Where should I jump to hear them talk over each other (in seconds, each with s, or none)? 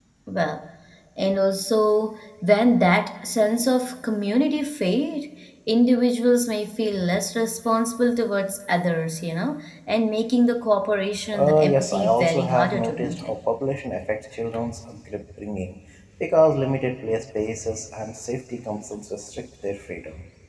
11.3 s